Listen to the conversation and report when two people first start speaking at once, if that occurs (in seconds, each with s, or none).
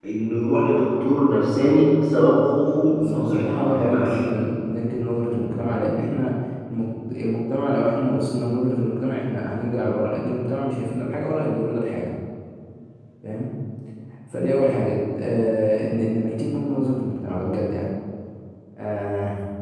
2.6 s